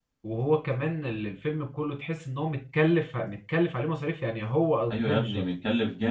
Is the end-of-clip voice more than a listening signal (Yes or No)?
Yes